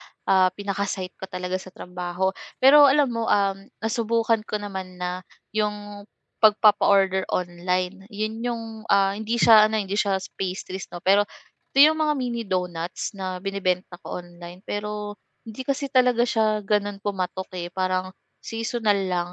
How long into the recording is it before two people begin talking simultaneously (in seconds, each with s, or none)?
none